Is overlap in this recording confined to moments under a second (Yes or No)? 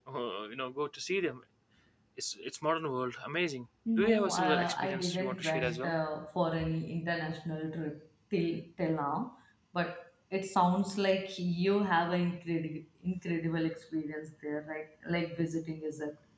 No